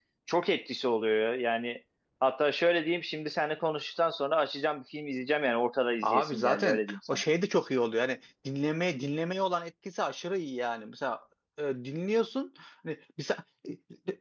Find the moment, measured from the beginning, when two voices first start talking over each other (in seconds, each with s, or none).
6.0 s